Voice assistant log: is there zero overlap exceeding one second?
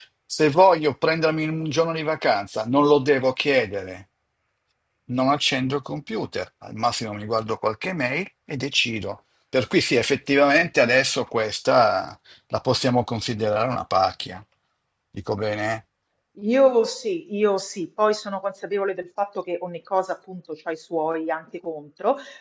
Yes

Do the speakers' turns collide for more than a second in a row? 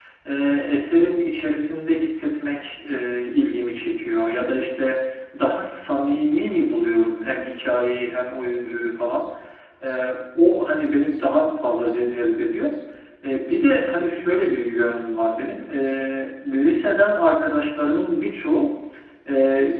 No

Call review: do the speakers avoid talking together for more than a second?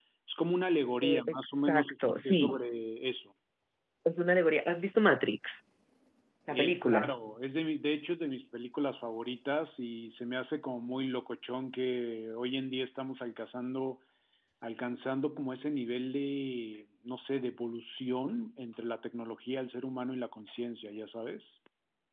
No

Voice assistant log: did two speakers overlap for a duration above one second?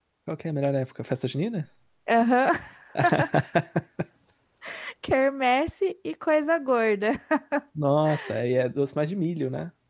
No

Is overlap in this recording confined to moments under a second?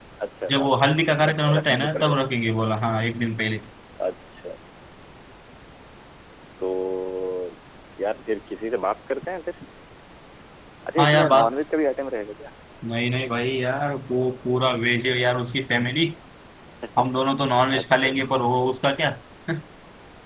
No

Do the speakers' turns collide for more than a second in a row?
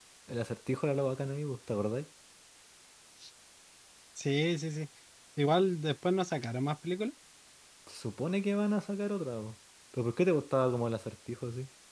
No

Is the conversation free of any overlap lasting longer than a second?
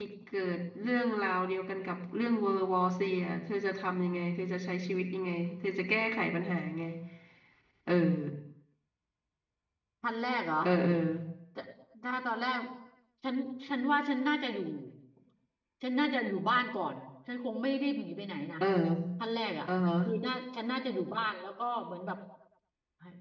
Yes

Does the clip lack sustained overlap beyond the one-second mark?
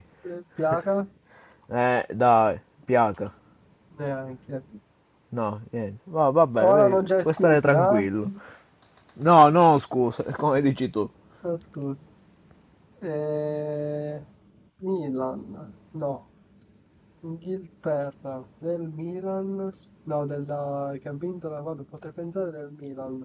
No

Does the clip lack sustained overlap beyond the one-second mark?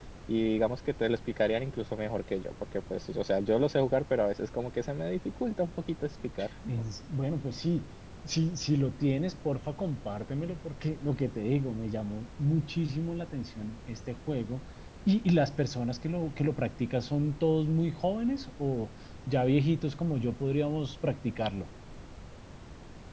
Yes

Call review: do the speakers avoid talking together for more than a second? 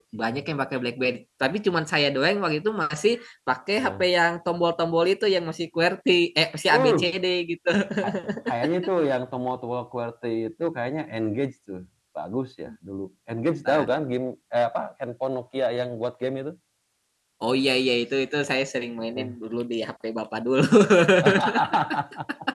Yes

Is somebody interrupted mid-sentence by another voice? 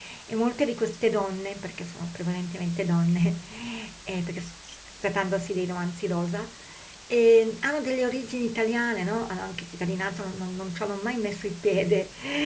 No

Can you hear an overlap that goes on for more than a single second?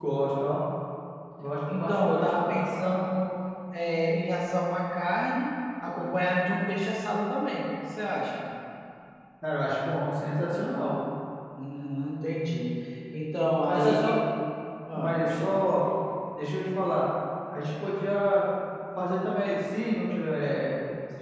Yes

